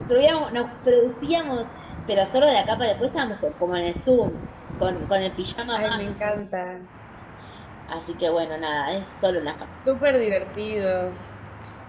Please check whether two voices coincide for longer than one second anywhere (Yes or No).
No